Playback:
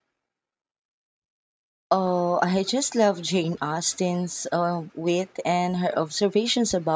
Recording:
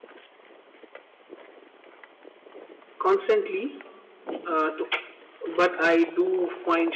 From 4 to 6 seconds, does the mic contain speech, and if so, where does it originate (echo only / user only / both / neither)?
user only